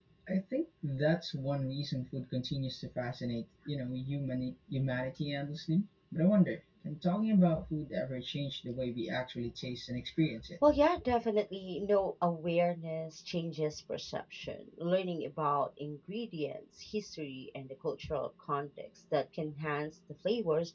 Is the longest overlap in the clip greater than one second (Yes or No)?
No